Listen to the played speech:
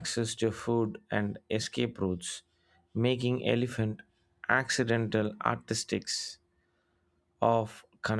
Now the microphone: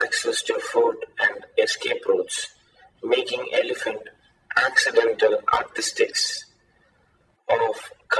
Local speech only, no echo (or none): none